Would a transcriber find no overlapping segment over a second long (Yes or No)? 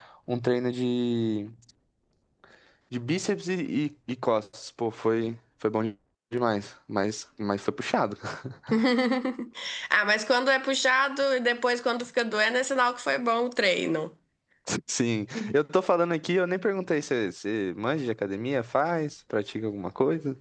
Yes